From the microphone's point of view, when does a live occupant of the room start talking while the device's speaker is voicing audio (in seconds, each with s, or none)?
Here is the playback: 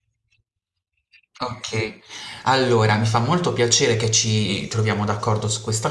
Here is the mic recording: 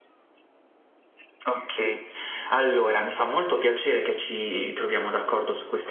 none